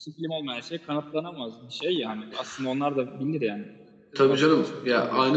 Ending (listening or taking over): taking over